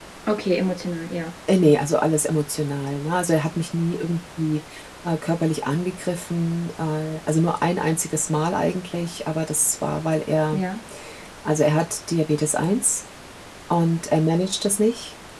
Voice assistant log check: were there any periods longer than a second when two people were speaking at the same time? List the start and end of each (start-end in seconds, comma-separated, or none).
none